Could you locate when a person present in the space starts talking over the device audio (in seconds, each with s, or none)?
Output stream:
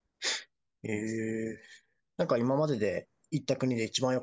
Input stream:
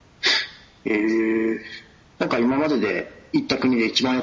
none